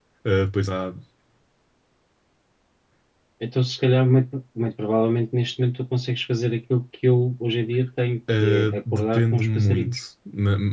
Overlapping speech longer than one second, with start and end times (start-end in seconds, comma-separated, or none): 8.4-10.0